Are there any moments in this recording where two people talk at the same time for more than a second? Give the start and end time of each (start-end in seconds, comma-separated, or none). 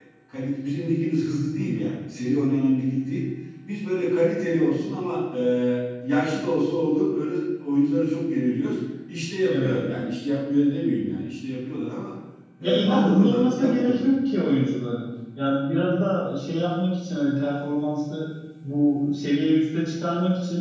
12.6-14.0